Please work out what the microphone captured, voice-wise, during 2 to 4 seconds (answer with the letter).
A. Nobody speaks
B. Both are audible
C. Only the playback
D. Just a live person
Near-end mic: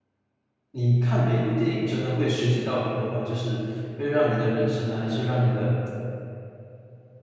D